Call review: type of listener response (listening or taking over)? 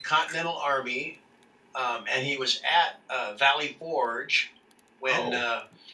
listening